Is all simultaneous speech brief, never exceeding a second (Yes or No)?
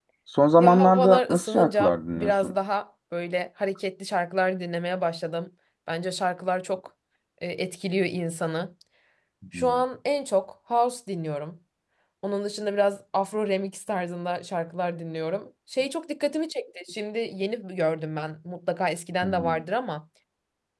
No